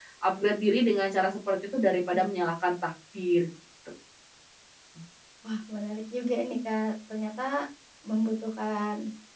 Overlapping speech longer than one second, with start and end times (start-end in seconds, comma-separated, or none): none